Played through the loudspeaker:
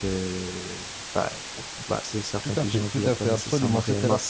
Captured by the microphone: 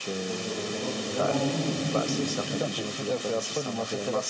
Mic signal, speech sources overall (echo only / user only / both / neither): both